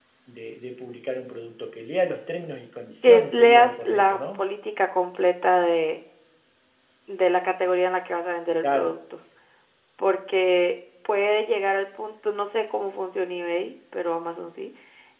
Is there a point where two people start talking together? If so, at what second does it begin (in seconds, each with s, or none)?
3.0 s